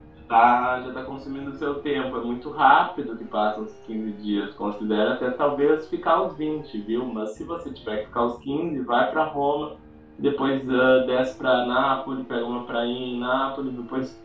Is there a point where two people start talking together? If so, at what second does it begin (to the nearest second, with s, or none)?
none